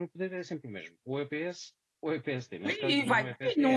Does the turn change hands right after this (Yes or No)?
Yes